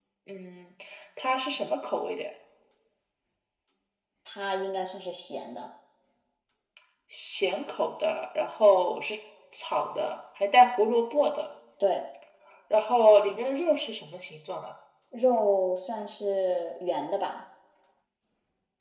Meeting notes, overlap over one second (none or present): none